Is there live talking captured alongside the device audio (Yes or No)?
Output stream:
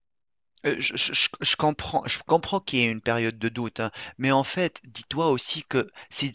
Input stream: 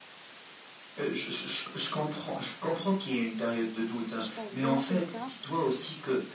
Yes